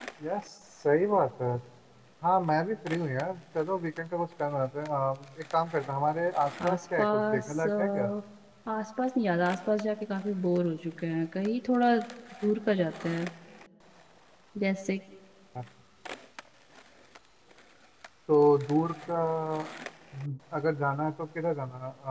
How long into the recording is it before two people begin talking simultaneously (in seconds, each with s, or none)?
6.6 s